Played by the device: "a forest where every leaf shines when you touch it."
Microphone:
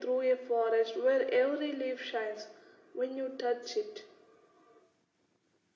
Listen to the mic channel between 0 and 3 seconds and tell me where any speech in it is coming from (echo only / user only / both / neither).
echo only